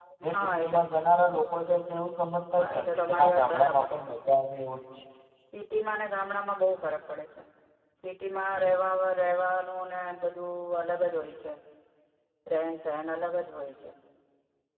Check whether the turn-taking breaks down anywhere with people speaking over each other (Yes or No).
Yes